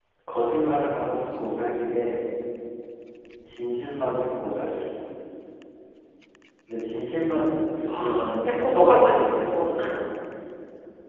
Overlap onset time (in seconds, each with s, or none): 7.9 s